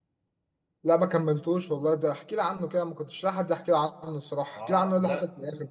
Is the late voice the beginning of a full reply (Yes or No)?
Yes